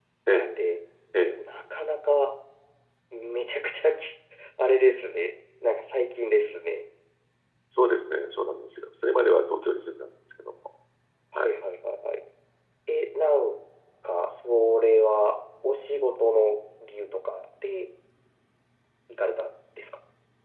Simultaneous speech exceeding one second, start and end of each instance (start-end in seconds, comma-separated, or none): none